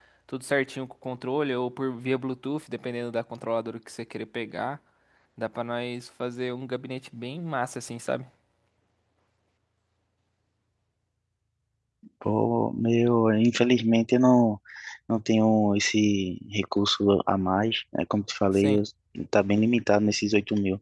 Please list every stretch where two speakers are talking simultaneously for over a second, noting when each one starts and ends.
none

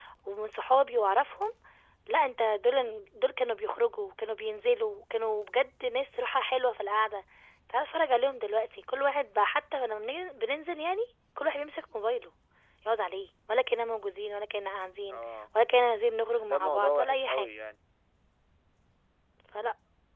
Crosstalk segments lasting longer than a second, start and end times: 16.3-17.5

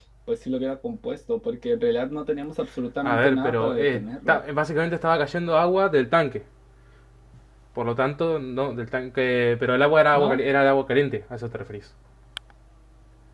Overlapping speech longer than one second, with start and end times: 3.0-4.4

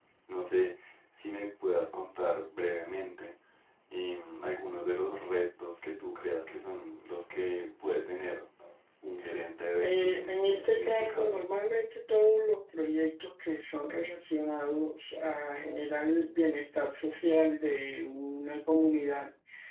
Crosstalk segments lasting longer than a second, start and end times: 9.8-11.4

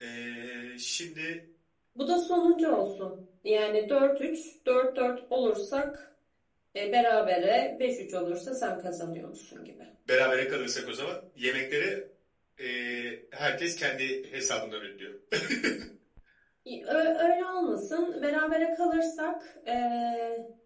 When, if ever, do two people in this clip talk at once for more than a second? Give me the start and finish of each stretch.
none

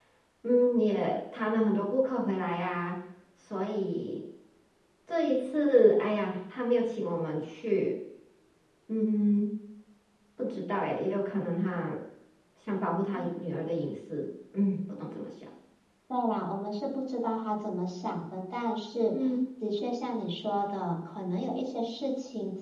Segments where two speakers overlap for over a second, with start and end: none

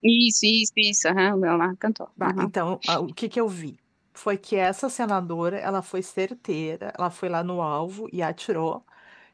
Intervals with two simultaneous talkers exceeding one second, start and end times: none

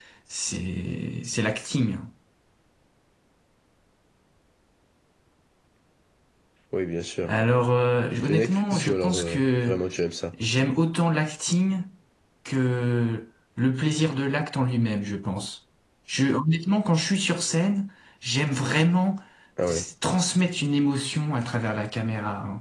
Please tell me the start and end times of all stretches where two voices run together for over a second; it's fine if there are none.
8.2-9.8

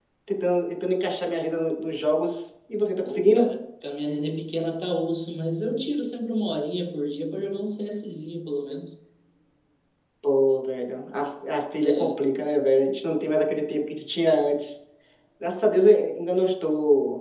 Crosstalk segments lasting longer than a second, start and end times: none

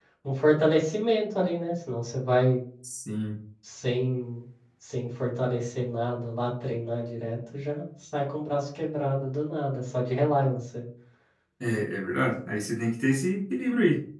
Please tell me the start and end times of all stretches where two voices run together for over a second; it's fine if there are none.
none

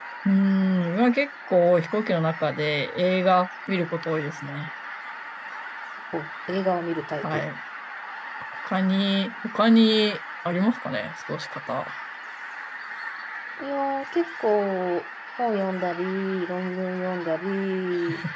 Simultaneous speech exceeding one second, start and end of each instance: none

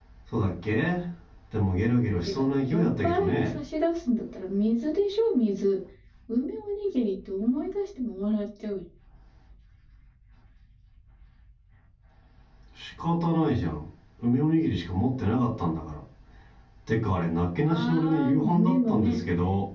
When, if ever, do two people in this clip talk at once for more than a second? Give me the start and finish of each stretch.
2.2-3.6, 17.7-19.2

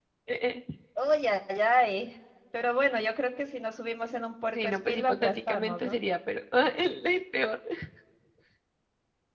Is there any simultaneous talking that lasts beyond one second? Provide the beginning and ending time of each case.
4.5-6.0

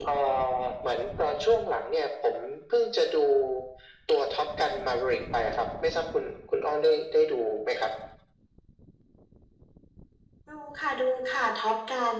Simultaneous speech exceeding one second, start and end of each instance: none

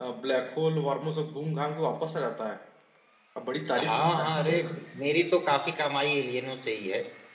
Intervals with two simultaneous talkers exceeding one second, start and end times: 3.8-5.0

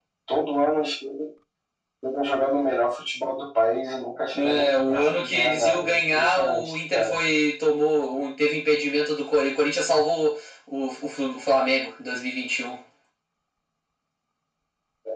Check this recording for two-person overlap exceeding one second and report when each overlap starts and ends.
4.3-7.2

